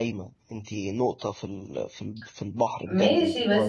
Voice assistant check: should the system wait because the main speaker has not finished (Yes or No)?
No